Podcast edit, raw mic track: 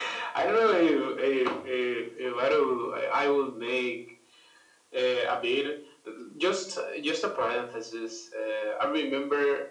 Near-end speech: none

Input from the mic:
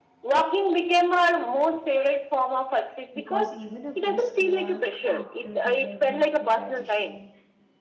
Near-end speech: present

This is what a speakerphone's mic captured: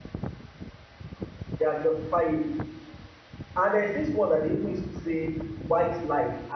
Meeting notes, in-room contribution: present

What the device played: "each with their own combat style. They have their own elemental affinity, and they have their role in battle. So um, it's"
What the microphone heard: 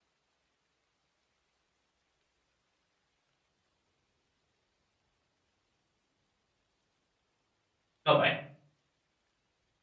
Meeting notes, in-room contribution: present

